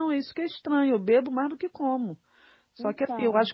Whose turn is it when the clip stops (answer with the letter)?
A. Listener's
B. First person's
B